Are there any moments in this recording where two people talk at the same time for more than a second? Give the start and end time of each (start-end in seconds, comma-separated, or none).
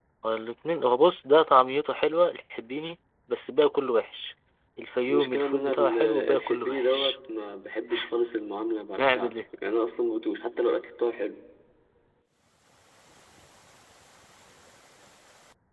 5.1-7.1